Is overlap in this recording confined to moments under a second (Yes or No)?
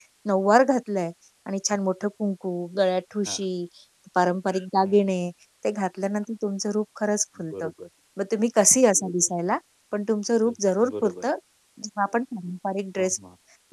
Yes